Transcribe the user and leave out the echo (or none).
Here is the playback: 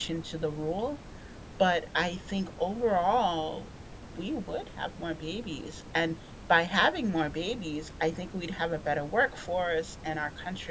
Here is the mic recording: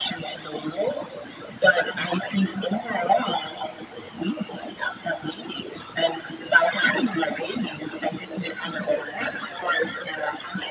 none